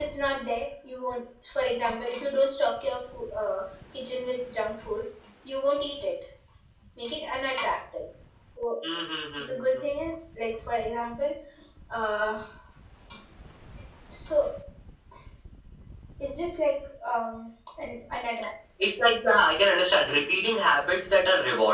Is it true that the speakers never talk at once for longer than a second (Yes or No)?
Yes